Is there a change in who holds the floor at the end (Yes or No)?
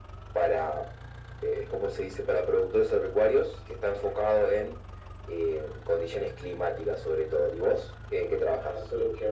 Yes